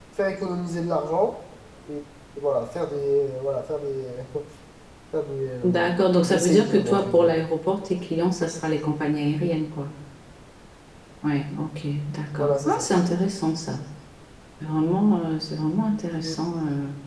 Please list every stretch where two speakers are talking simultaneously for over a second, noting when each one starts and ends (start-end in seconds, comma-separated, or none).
5.6-7.3